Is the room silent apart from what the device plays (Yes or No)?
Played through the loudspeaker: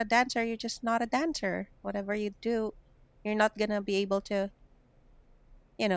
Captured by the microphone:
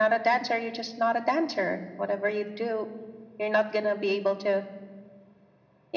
Yes